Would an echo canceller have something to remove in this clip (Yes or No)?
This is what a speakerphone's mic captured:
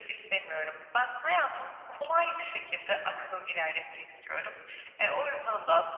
Yes